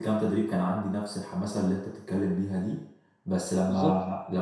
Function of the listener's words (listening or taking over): listening